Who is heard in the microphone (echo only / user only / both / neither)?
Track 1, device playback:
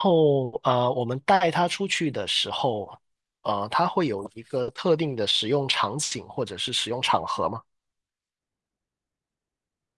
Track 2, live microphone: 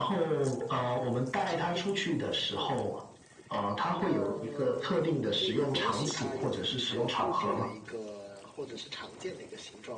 both